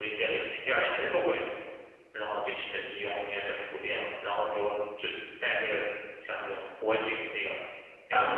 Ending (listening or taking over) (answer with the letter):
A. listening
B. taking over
A